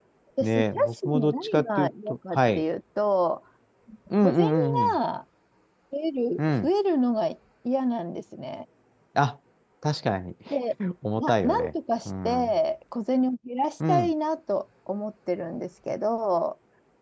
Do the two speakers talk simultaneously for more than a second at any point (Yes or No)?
Yes